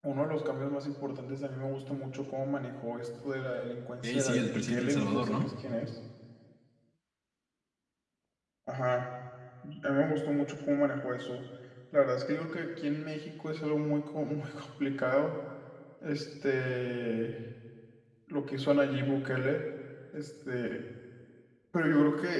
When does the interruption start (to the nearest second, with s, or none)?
4 s